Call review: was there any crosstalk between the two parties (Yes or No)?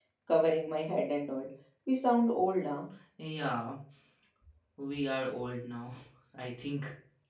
No